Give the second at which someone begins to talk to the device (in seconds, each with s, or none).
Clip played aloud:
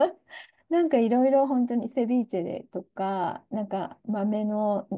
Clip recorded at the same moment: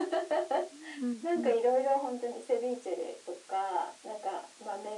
0.7 s